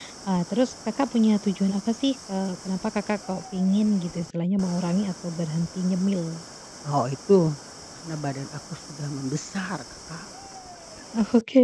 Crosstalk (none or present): none